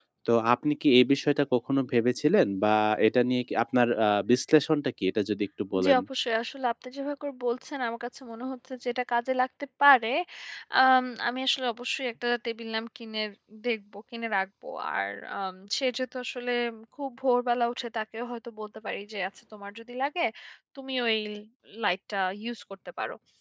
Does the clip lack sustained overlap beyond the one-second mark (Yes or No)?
Yes